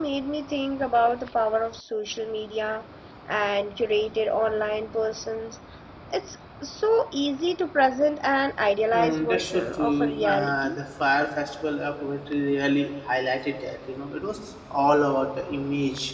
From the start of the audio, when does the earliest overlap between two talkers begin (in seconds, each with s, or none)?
8.9 s